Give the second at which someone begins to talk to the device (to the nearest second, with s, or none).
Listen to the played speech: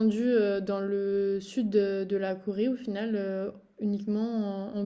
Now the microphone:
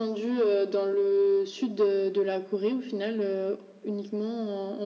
none